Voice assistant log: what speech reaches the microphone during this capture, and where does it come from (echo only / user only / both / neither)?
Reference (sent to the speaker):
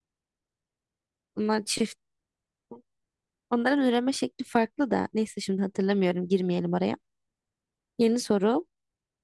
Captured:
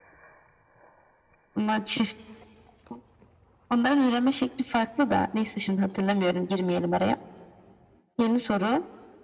echo only